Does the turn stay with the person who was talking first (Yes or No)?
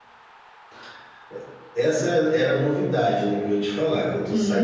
No